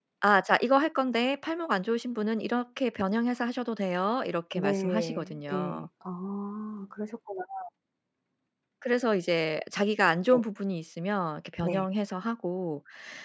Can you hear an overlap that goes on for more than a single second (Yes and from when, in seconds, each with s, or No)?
Yes, from 4.6 s